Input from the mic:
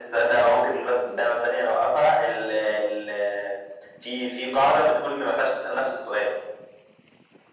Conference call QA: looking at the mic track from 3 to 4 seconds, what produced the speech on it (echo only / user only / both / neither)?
echo only